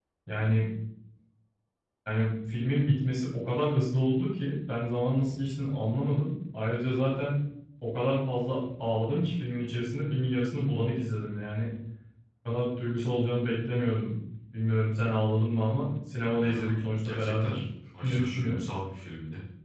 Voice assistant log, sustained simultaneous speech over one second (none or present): present